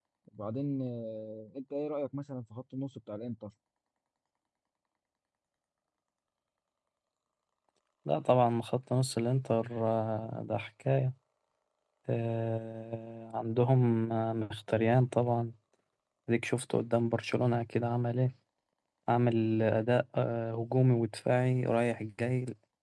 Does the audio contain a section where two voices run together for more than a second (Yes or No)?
No